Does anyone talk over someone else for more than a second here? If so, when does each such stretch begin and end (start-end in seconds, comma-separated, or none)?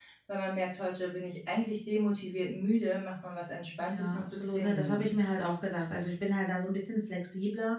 3.8-5.1